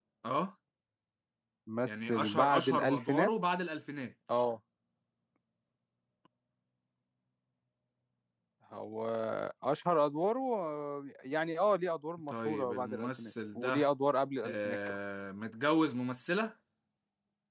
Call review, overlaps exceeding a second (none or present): present